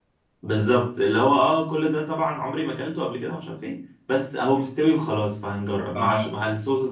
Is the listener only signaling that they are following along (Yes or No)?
Yes